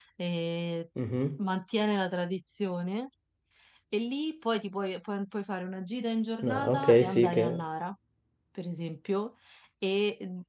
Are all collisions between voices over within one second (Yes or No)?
No